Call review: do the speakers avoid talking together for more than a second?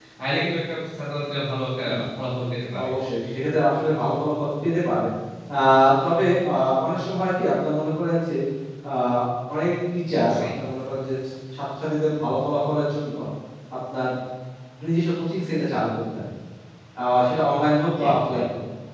Yes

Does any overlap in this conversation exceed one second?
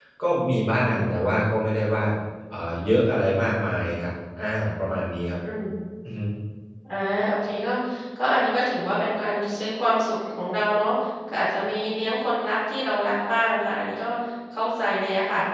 No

